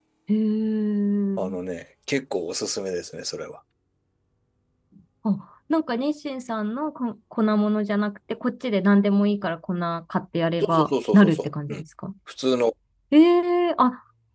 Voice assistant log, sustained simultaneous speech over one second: present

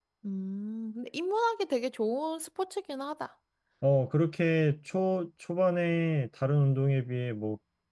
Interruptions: none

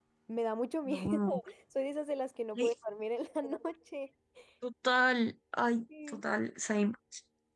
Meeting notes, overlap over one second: none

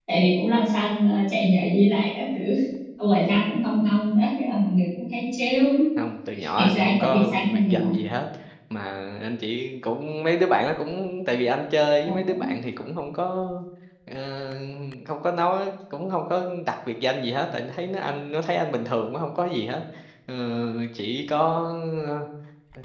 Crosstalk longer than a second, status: present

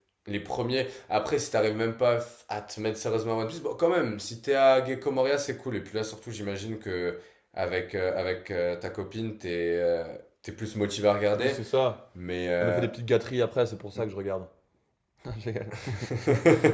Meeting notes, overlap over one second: none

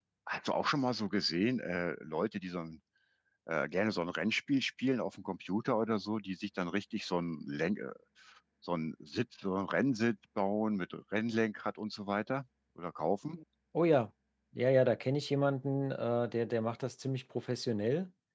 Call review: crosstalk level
none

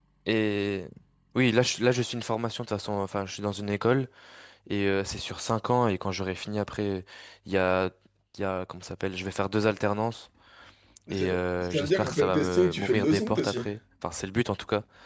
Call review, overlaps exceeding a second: present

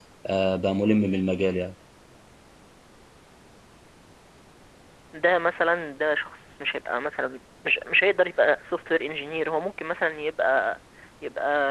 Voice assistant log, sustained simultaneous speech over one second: none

